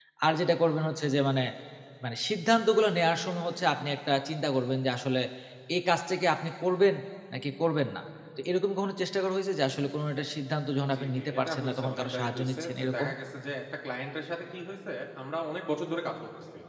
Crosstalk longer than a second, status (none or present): present